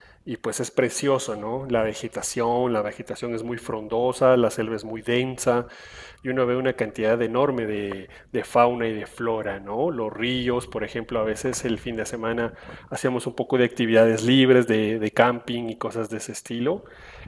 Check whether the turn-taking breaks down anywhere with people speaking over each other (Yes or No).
No